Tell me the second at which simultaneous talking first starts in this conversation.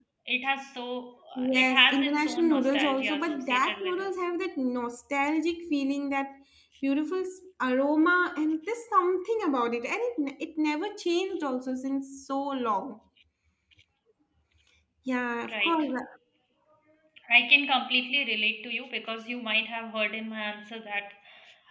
1.5 s

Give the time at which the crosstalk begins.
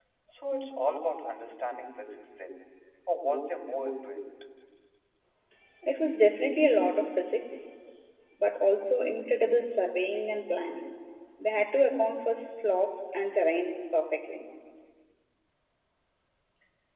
none

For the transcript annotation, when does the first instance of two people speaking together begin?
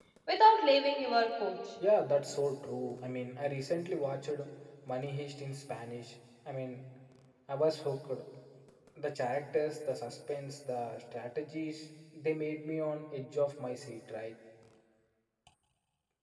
none

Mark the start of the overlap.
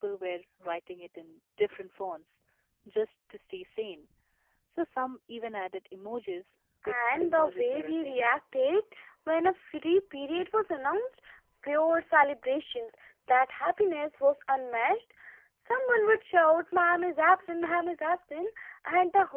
6.8 s

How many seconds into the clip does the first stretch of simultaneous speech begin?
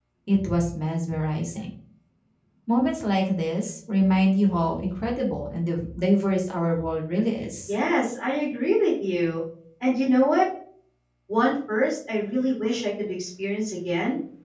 none

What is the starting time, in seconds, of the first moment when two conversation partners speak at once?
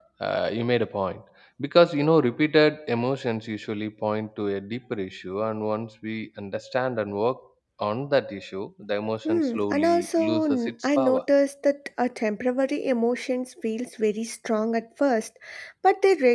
9.2 s

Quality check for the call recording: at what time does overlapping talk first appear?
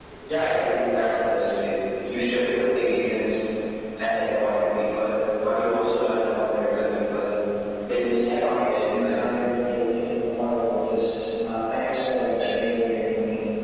8.2 s

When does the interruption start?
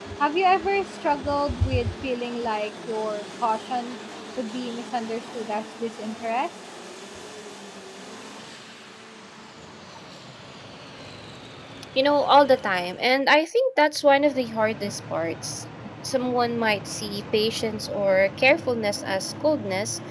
none

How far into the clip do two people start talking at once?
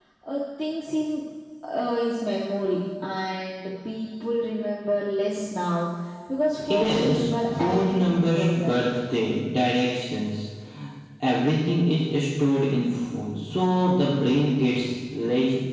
6.7 s

